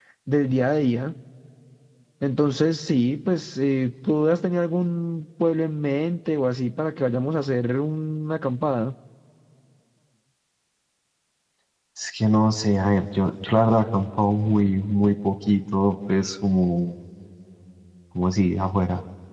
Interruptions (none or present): none